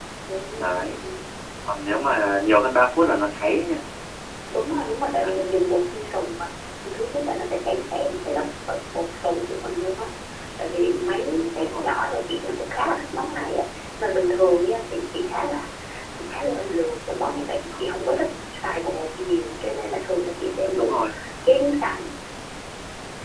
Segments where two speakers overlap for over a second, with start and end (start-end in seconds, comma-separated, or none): none